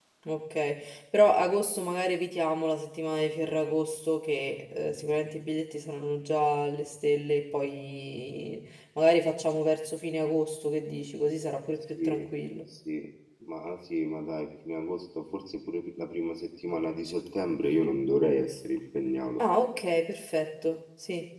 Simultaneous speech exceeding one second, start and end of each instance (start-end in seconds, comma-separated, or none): none